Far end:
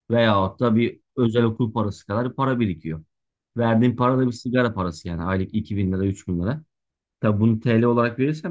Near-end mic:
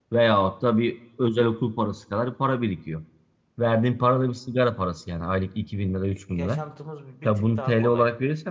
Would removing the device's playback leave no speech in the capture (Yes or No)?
No